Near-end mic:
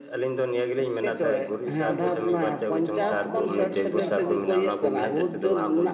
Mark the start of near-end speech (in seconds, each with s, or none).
1.8 s